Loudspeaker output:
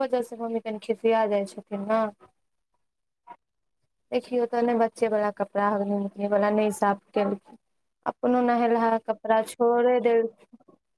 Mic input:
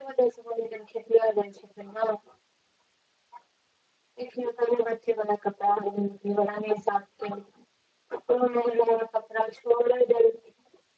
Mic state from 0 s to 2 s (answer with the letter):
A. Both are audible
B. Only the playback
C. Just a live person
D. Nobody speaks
B